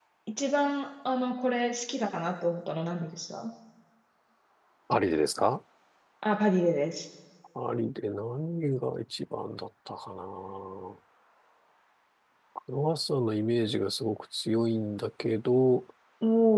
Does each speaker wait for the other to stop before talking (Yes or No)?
Yes